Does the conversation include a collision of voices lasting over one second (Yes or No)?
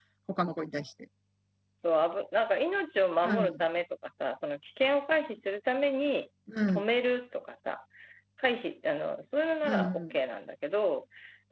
No